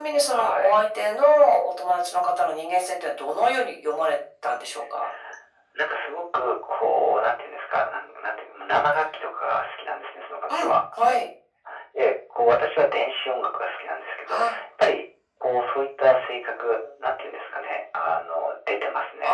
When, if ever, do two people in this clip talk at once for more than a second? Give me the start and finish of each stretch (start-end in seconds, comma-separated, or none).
none